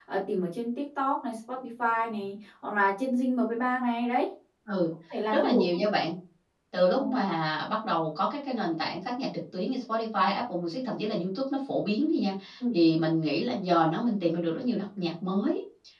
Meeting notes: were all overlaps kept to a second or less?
Yes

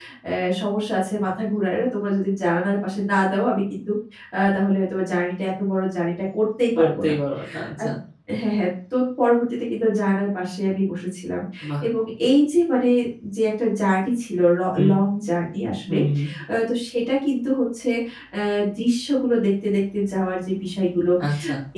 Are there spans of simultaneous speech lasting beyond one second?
No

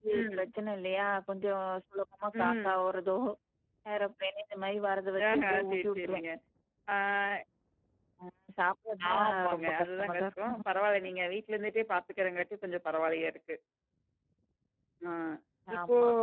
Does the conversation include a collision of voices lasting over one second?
Yes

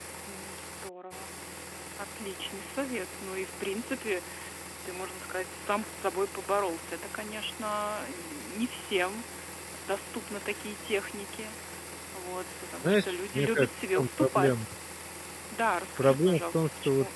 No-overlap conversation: No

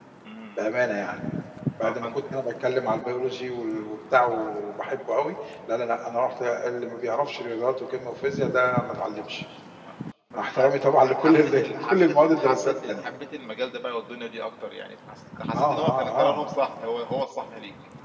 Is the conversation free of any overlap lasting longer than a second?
No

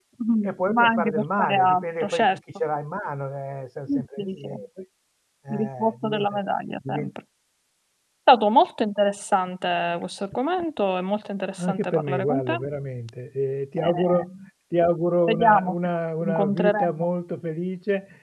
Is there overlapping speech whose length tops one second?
Yes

